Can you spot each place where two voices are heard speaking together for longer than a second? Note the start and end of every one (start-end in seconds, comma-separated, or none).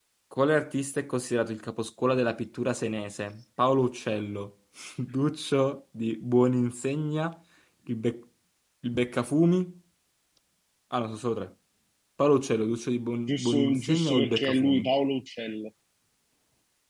13.3-14.9